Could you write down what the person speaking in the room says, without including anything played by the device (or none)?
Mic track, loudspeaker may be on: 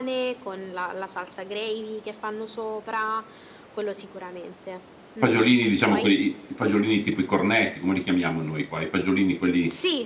Fagiolini diciamo que i i fagiolini tipo i cornetti, come li chiamiamo noi qua? I fagiolini quelli